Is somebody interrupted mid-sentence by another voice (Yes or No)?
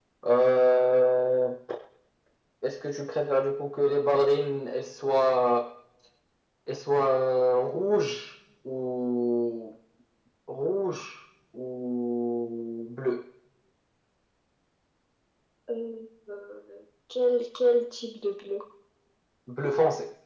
No